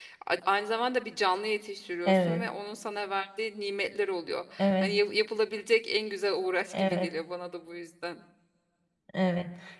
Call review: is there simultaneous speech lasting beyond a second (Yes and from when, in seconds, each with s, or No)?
No